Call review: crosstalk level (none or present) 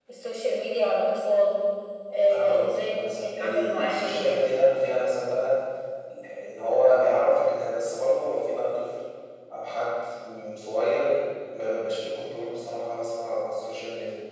present